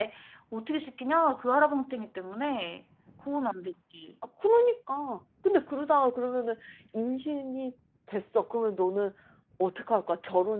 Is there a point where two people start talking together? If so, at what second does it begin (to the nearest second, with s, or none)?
none